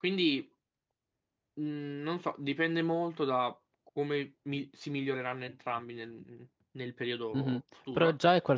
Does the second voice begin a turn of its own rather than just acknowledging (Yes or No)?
Yes